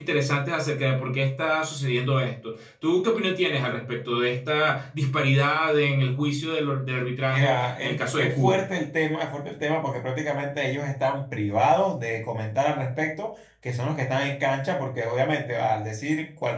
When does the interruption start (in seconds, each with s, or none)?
7.3 s